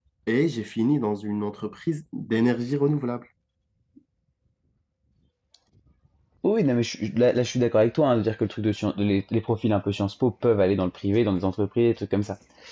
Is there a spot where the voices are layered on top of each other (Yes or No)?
No